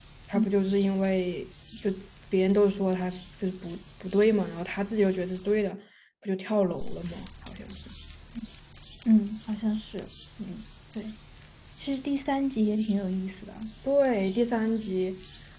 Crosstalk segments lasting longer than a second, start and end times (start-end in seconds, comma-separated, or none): none